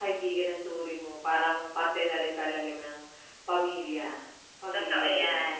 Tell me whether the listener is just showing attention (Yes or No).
No